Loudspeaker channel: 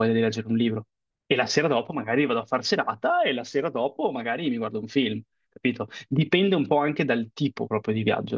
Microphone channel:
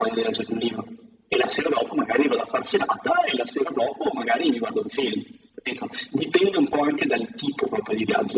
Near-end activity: none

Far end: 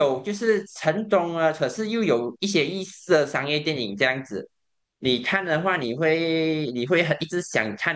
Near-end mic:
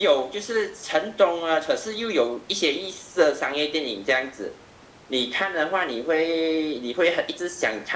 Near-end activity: none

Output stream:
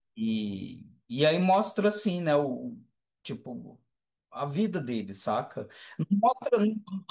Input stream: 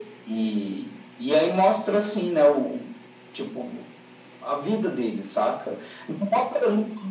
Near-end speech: none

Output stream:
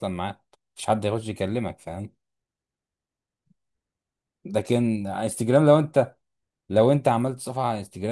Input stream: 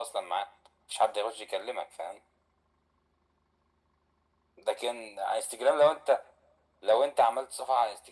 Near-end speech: none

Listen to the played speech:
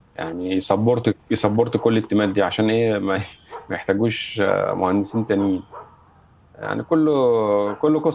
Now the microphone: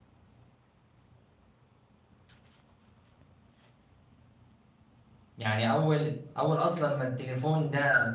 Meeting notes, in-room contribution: present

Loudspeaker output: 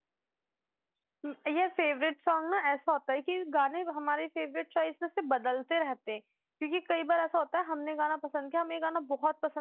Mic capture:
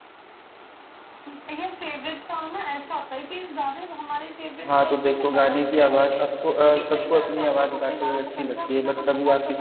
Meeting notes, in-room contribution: present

